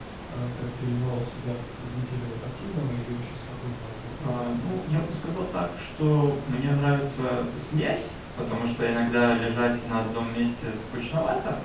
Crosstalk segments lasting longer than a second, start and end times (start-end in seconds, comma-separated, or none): none